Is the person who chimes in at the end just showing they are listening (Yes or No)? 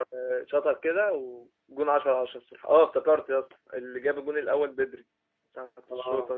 Yes